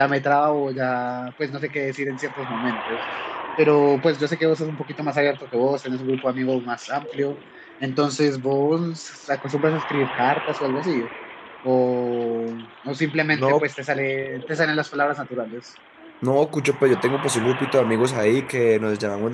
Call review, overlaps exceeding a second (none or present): none